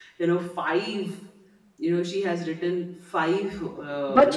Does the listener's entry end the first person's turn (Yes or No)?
Yes